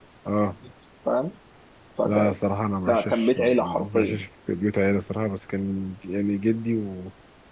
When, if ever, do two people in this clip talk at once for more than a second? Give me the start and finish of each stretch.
2.9-4.2

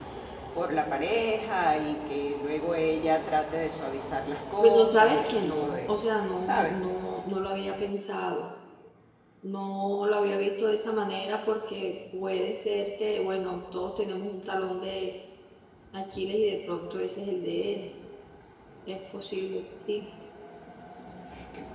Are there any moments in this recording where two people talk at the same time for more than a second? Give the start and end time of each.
4.6-5.9

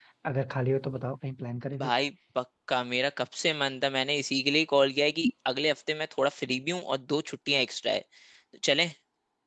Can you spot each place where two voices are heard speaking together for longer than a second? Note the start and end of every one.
none

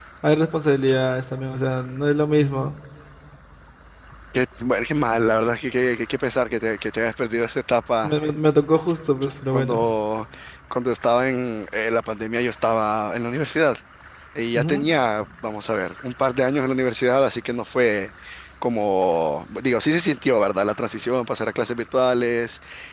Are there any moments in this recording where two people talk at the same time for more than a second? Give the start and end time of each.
none

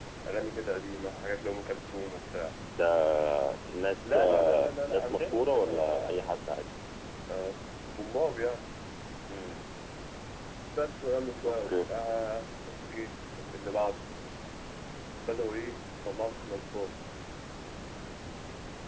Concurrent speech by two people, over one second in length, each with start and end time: 4.0-6.4

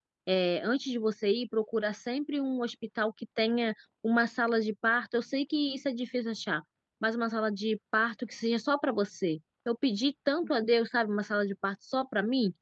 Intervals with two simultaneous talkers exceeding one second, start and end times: none

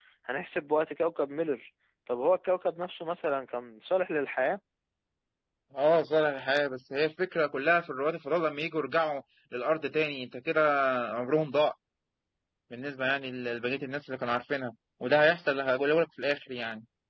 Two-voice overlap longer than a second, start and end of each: none

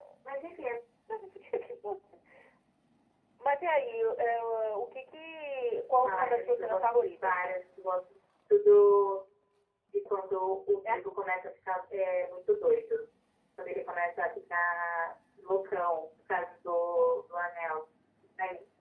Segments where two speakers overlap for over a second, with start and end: 6.0-7.3

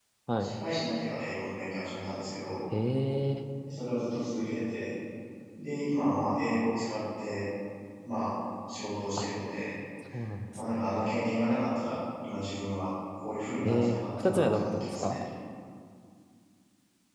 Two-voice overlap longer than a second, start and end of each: 13.6-15.2

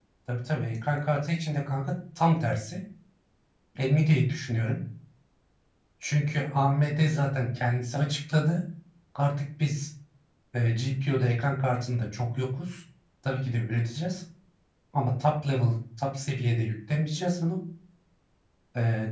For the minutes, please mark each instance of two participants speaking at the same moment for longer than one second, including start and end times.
none

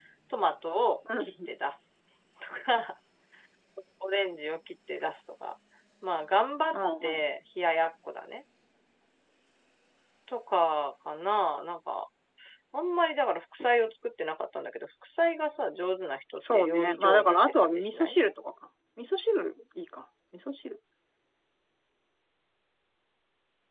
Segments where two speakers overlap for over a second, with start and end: 16.4-18.2

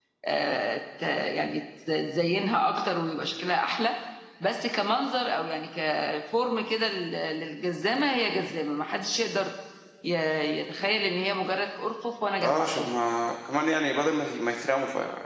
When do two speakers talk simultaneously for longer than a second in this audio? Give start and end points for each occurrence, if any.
none

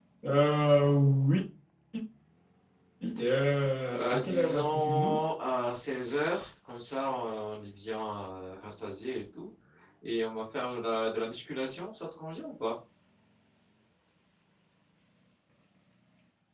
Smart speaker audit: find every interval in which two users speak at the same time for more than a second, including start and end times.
4.0-5.2

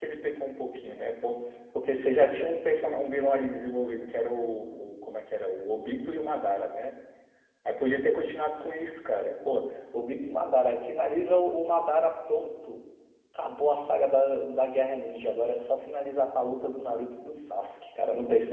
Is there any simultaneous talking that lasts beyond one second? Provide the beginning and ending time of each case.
none

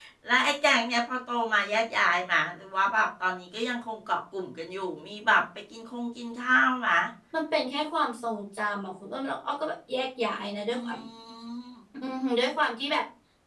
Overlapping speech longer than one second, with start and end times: none

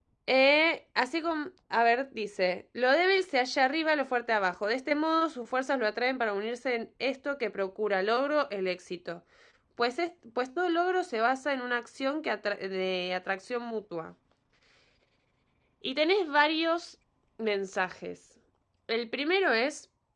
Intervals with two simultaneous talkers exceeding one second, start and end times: none

